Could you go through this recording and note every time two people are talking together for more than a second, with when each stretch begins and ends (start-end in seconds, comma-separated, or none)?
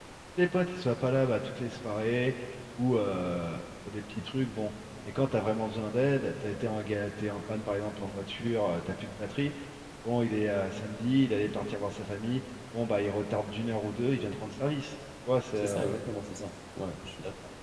none